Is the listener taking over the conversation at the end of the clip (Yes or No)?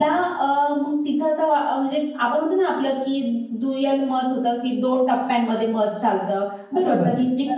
Yes